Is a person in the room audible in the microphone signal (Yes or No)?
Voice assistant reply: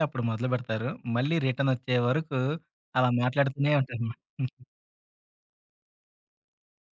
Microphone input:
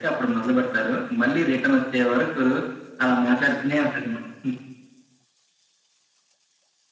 No